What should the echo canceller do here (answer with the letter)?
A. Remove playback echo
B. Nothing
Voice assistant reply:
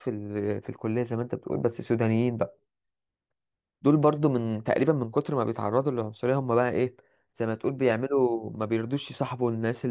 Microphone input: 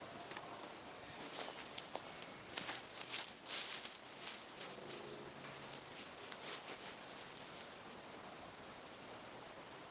B